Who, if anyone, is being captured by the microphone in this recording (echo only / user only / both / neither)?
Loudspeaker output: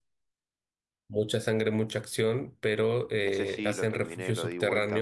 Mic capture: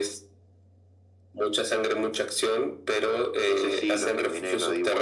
echo only